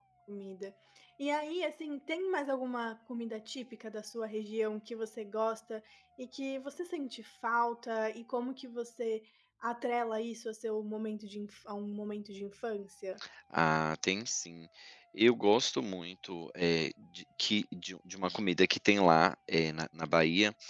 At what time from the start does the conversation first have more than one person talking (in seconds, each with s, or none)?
none